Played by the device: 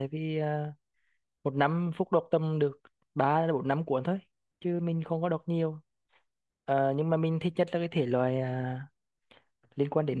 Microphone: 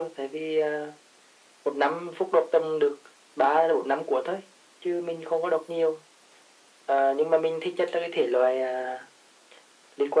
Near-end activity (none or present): none